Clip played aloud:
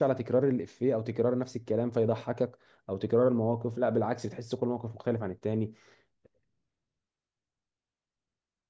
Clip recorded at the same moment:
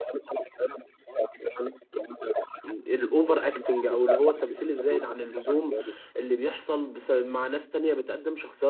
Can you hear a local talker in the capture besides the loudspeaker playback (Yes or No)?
Yes